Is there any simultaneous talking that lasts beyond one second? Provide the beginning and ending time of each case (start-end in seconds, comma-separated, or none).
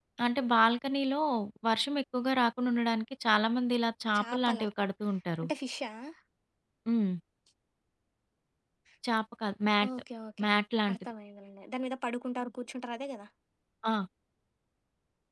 none